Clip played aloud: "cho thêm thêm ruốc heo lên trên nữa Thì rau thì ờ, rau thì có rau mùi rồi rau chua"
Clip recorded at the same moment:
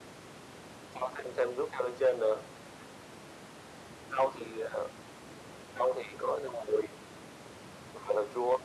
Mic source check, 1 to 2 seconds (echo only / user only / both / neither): echo only